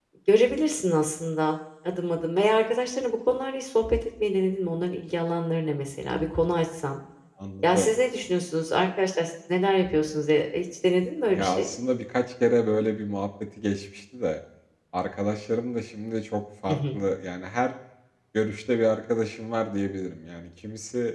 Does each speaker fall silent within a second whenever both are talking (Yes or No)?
Yes